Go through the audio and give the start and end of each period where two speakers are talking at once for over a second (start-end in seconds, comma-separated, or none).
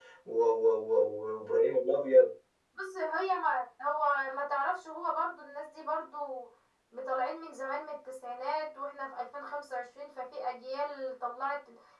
none